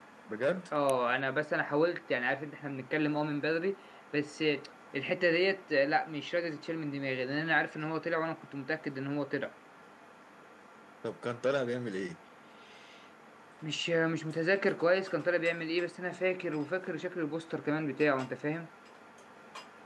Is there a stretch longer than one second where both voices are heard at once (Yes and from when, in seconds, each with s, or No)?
No